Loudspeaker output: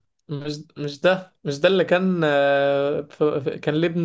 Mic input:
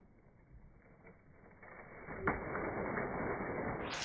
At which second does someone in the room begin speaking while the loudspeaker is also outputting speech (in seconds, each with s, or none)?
none